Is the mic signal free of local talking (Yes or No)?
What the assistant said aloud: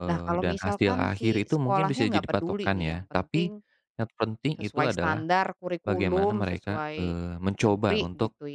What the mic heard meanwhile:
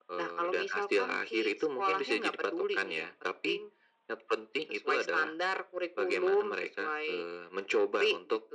Yes